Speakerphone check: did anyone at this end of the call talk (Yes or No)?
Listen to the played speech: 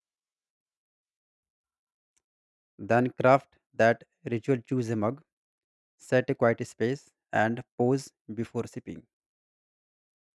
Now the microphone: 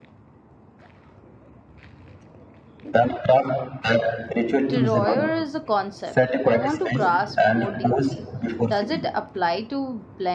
Yes